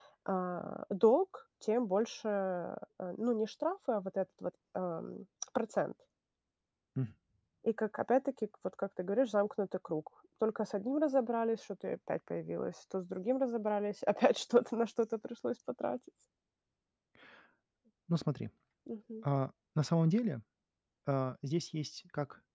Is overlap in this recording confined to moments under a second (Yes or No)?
Yes